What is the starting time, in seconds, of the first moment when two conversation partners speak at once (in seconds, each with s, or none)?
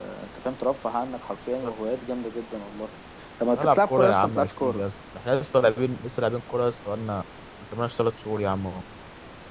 3.6 s